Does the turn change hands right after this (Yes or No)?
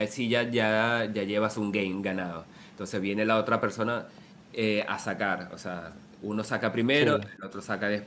No